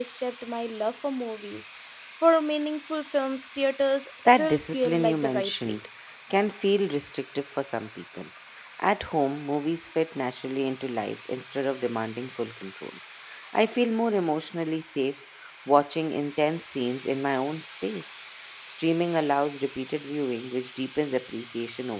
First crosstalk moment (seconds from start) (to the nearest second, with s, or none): 4 s